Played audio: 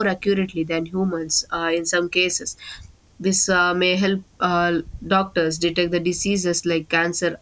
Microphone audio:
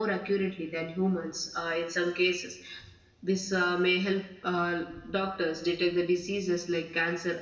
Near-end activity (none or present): none